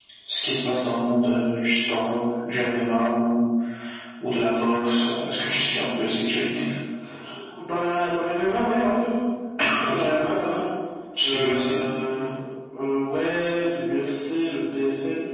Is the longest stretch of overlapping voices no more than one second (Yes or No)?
Yes